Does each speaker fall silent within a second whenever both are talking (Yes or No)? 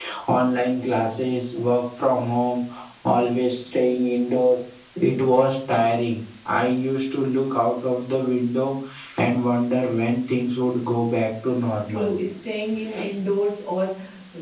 Yes